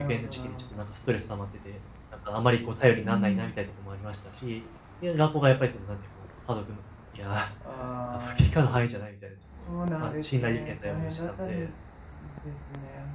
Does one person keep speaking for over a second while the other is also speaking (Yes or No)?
Yes